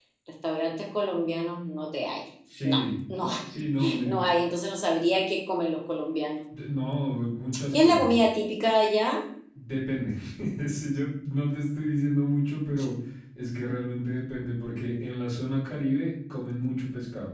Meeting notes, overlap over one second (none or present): none